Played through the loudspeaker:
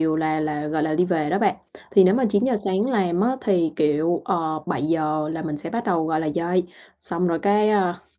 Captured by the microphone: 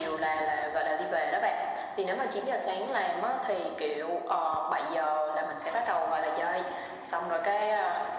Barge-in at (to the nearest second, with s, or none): none